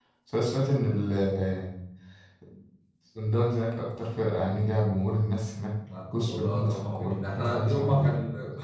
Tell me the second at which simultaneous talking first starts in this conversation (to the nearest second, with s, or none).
6 s